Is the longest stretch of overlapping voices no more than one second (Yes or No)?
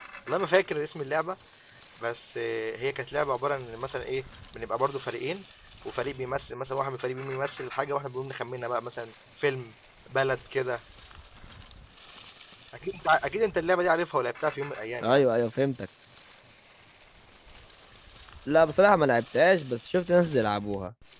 Yes